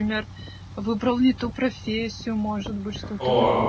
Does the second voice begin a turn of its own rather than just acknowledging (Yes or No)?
Yes